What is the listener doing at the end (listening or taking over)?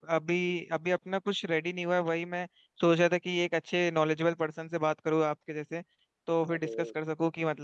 listening